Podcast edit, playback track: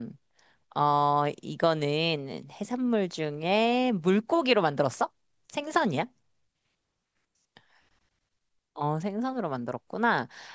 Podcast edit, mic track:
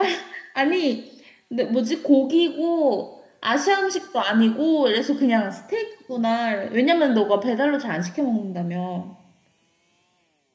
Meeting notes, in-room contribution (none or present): present